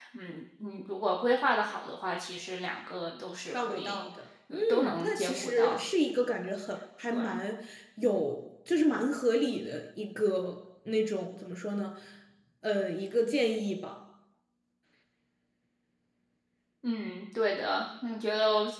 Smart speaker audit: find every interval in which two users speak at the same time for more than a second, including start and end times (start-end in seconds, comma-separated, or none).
4.5-5.8